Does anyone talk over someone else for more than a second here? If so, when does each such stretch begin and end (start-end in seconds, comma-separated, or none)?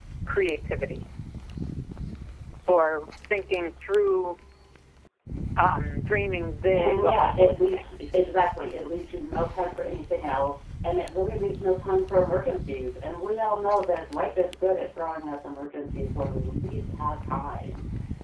6.7-7.9